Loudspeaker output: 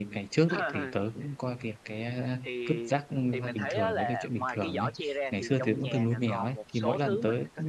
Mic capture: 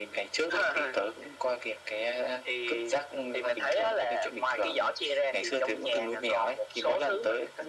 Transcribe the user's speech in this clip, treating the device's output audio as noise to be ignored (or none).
none